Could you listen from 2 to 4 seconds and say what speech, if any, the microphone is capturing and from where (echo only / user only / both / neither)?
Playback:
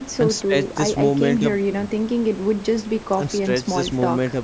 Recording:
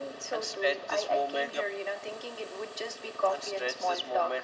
echo only